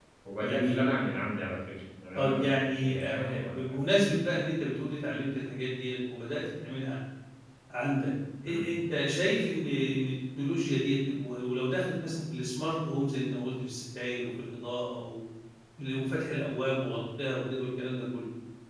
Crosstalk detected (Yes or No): Yes